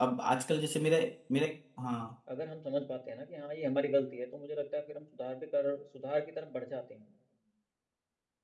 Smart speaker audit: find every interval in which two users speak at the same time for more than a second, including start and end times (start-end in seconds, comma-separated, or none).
none